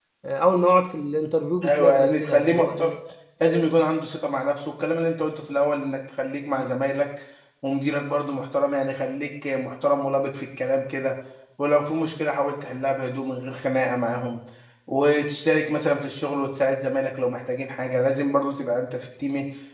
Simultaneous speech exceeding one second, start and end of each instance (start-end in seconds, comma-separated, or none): 1.6-2.9